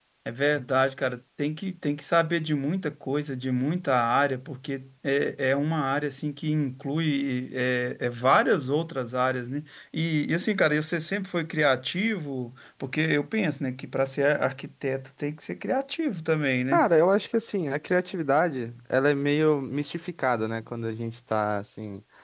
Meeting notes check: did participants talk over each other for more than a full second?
No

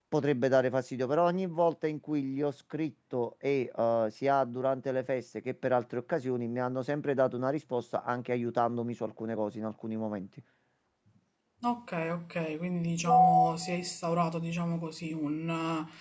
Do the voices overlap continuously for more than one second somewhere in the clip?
No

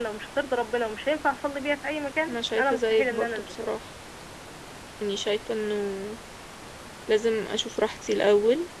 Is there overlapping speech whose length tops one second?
Yes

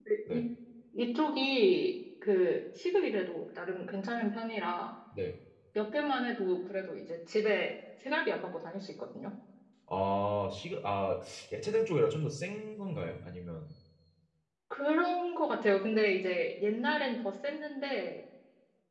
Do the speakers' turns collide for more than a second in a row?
No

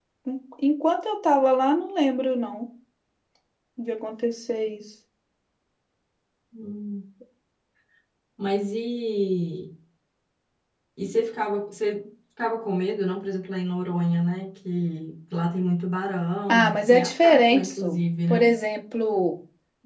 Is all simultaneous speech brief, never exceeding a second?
No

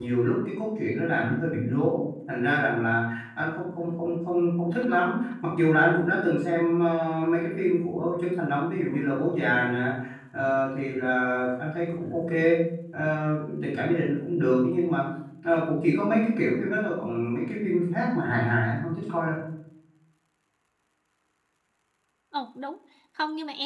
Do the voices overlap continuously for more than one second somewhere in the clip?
No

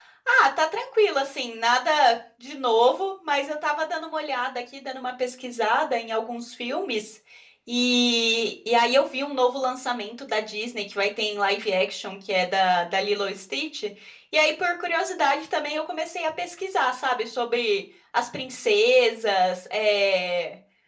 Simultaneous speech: No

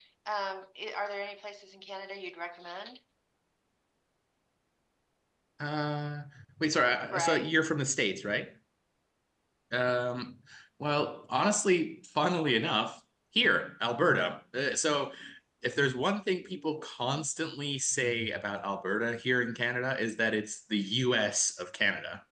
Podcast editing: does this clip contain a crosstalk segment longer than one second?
No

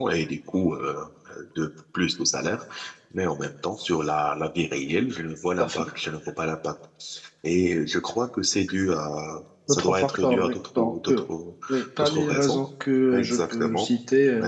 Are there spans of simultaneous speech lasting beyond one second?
Yes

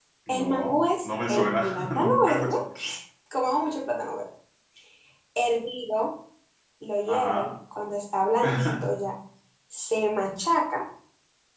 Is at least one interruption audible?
Yes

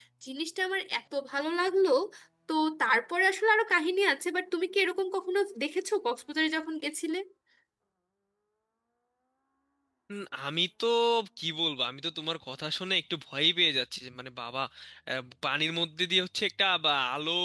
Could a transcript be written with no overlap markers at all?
Yes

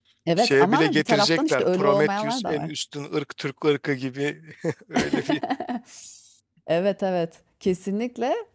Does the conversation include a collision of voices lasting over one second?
Yes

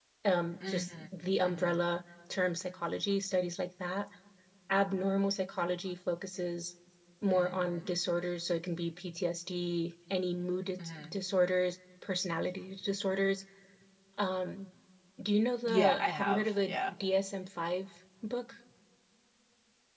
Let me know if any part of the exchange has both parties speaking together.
Yes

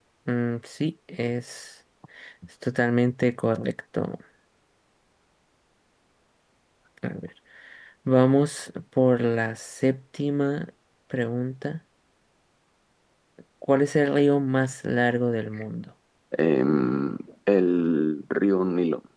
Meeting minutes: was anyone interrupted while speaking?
No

